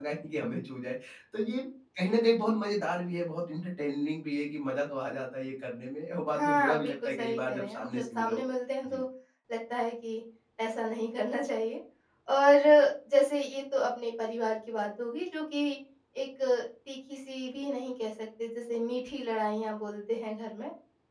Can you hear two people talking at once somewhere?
Yes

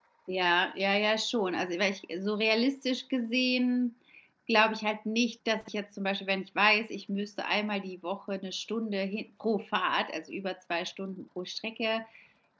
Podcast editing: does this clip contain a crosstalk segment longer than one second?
No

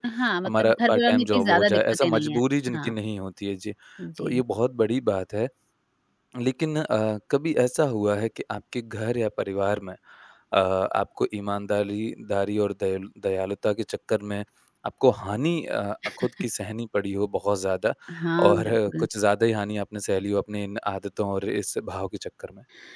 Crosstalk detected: Yes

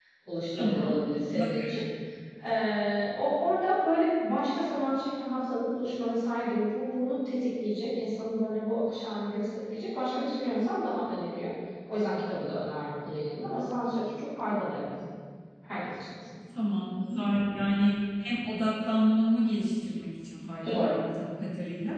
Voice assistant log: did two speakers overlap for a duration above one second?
No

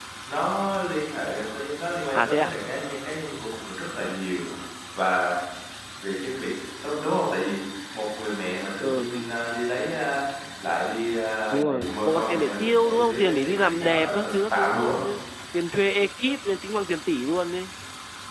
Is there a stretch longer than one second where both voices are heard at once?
Yes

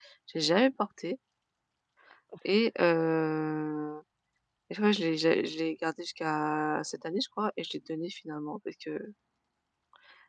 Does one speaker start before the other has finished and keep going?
No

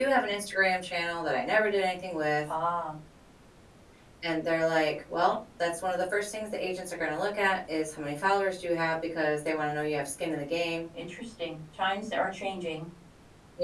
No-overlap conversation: Yes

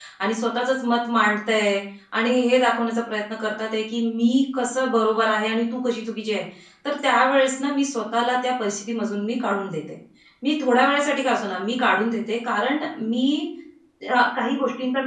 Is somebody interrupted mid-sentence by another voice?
No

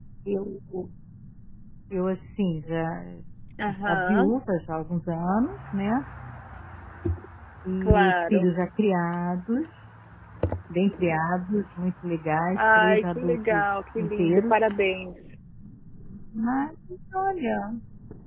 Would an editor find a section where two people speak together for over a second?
Yes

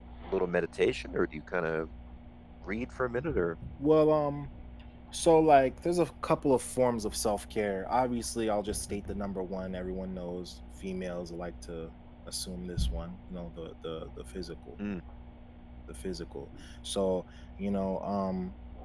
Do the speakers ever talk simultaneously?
No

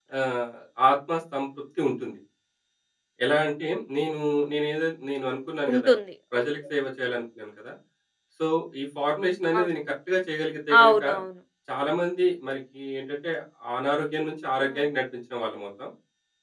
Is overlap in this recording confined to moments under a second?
Yes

